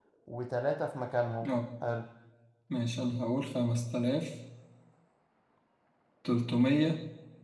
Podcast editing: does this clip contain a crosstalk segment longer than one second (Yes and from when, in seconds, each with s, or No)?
No